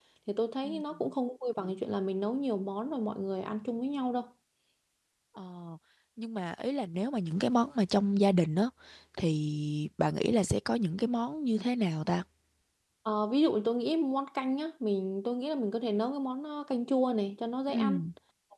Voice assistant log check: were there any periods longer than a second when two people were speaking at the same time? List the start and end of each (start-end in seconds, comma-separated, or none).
none